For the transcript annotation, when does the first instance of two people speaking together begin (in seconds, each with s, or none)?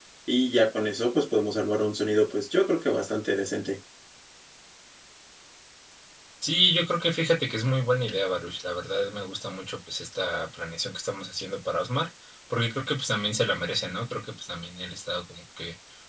none